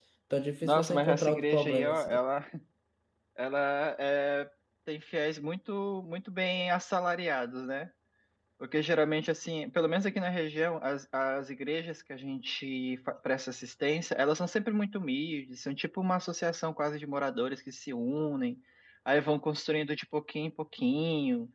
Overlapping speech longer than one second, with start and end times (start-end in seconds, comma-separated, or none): 0.6-2.2